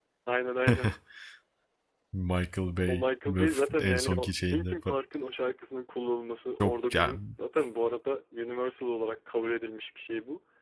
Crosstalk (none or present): present